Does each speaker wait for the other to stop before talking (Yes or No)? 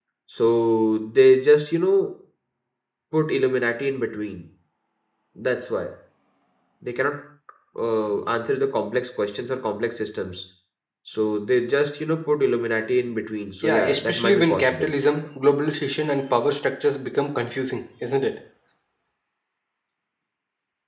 No